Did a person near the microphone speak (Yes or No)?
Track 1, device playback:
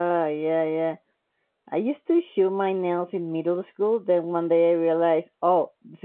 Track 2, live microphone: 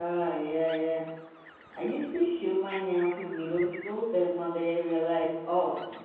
No